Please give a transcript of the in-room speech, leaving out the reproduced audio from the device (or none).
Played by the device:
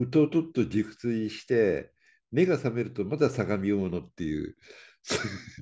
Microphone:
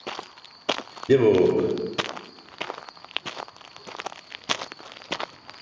でも、